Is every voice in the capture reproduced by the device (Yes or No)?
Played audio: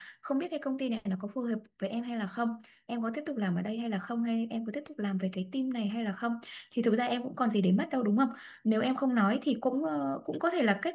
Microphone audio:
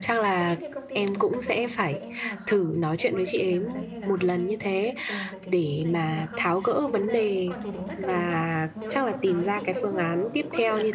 No